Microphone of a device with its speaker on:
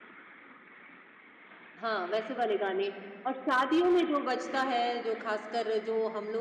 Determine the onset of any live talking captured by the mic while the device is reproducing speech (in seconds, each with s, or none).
1.8 s